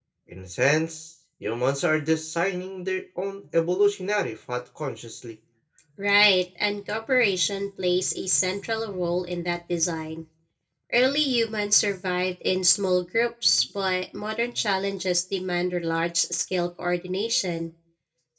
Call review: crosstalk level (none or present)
none